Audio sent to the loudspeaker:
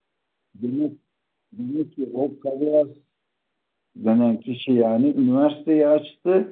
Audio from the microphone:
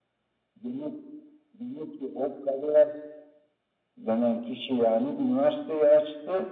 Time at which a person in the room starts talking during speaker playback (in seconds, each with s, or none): none